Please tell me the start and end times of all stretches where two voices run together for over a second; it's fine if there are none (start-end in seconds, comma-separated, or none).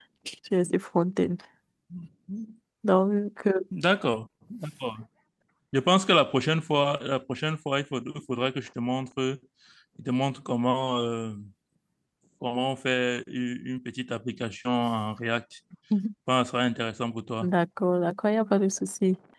none